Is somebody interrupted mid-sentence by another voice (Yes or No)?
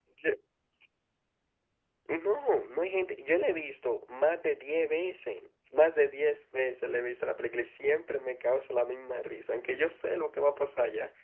No